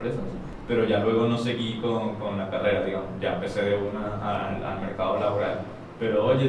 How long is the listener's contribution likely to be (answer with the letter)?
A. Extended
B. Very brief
B